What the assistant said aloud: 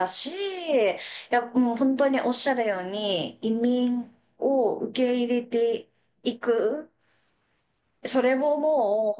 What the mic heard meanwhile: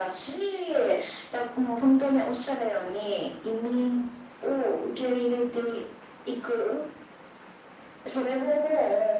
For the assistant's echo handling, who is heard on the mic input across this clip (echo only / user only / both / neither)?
echo only